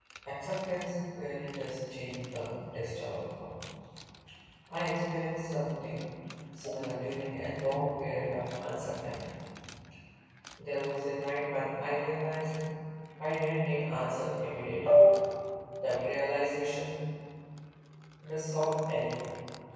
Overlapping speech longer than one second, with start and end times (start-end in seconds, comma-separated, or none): none